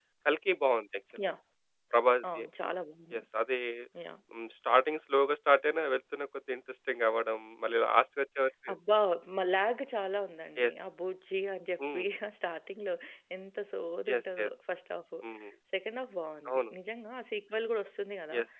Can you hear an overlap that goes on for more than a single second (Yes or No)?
No